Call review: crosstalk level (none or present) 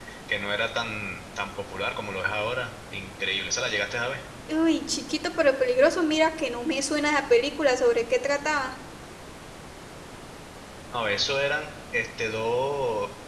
none